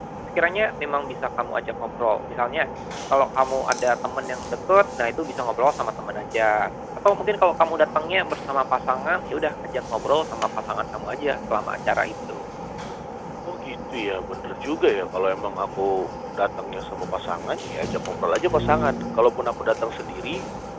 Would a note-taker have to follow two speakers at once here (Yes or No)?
No